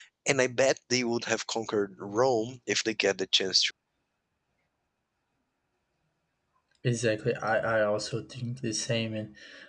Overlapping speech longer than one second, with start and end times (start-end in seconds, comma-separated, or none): none